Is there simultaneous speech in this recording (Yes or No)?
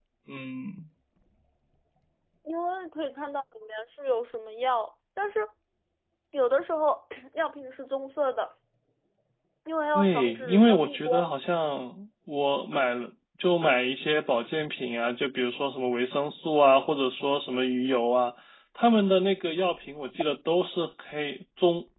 Yes